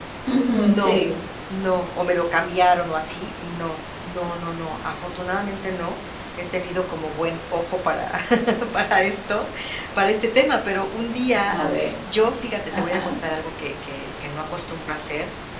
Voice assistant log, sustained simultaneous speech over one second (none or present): none